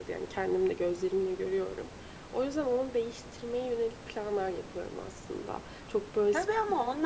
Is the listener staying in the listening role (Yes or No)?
No